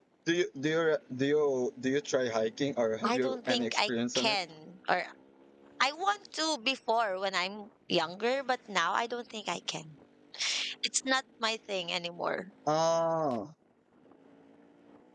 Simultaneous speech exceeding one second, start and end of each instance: 3.0-4.4

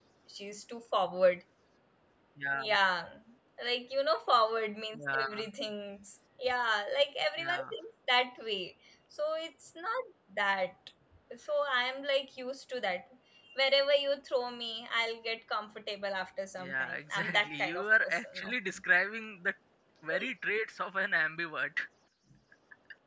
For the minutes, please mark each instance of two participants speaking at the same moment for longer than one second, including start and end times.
16.6-18.5

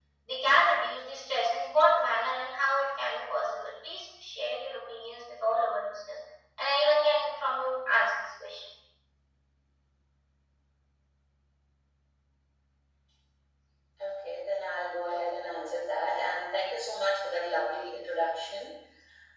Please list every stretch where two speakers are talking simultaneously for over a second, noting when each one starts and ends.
none

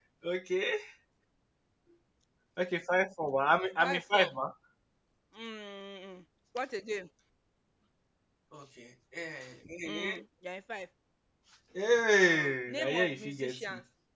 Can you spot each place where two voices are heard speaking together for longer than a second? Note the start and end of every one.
12.2-13.6

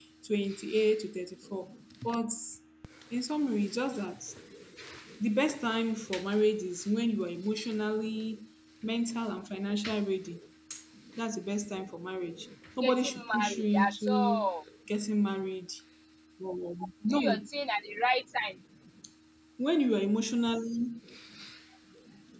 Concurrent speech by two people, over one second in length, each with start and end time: 12.8-14.5

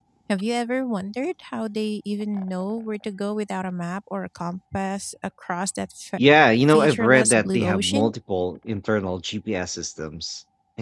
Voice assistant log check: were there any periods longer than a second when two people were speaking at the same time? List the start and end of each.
6.7-8.1

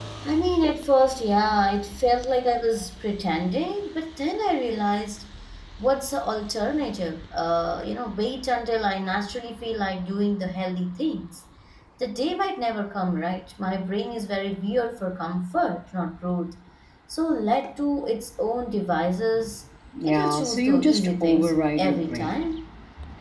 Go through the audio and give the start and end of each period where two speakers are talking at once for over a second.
20.0-22.4

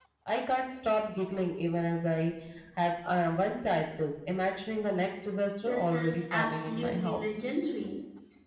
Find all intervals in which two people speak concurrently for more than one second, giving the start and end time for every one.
5.6-7.5

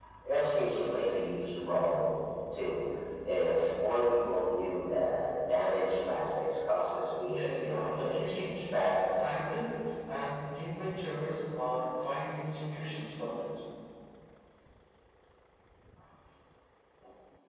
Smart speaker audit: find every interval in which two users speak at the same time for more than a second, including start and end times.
7.3-8.6

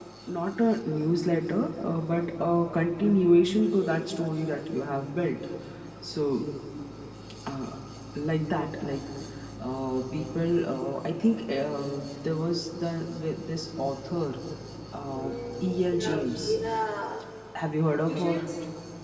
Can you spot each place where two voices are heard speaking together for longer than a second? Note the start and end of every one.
15.1-16.6

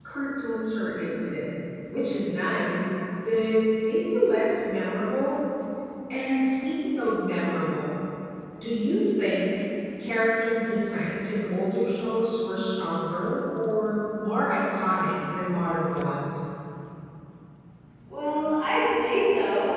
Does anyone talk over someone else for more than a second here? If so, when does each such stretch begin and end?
none

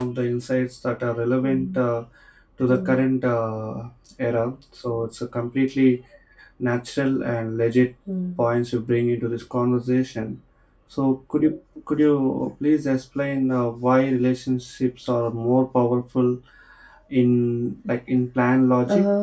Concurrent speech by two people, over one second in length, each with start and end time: none

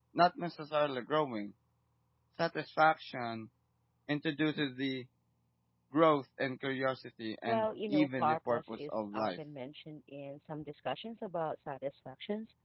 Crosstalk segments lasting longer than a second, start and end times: 7.5-9.4

